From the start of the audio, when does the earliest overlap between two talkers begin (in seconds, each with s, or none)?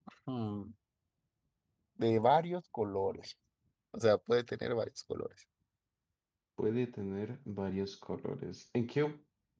none